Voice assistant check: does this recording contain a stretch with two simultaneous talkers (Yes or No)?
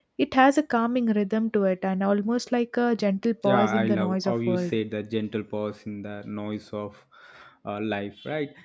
Yes